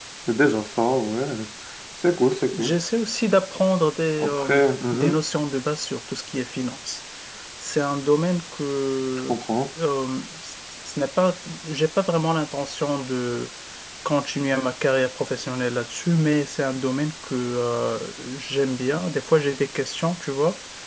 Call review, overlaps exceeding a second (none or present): none